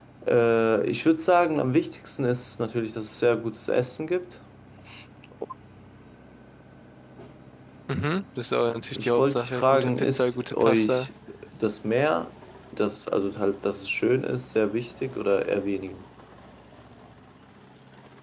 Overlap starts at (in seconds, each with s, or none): 8.9 s